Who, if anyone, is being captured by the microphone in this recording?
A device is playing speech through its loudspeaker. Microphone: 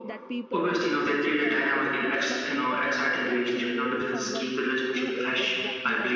both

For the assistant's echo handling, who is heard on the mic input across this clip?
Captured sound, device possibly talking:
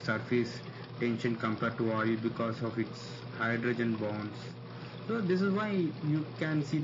echo only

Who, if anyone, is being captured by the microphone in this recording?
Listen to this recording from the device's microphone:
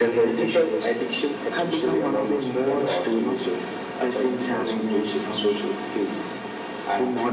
echo only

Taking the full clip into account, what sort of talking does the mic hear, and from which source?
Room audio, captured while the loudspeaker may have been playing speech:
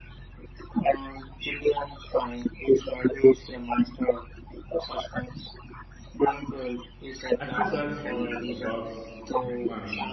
both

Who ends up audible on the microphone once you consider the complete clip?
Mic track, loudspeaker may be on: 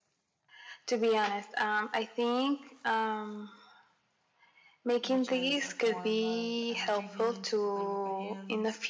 both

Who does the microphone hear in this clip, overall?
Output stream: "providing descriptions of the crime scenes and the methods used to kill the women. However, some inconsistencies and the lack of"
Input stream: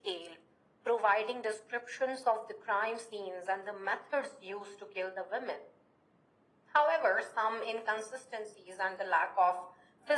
echo only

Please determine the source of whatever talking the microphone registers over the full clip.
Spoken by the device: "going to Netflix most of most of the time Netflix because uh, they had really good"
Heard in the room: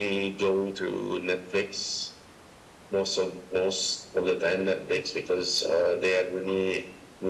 echo only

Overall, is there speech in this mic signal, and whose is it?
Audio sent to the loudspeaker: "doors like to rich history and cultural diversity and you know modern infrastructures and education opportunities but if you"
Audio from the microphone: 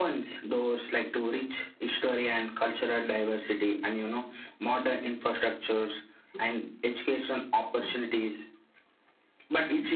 echo only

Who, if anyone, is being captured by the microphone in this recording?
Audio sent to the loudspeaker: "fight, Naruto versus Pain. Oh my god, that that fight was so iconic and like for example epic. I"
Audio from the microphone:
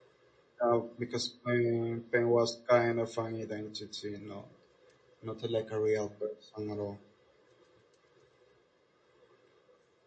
user only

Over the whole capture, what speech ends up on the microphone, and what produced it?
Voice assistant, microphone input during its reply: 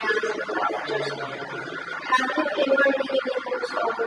both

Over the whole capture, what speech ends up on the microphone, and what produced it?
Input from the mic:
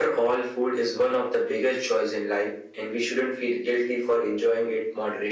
echo only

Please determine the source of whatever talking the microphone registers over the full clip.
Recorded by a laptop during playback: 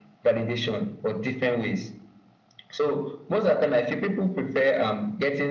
echo only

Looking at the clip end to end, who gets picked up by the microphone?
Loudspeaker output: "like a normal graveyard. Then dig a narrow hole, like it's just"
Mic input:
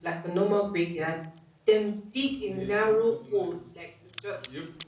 both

